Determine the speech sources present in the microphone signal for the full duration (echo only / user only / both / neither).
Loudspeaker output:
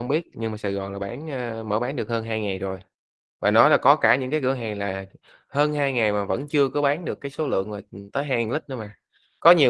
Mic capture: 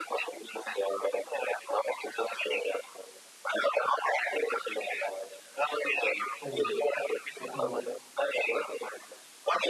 both